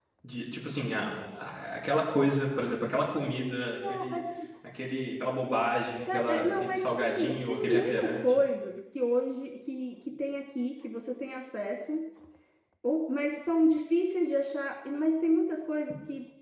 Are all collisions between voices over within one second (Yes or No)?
No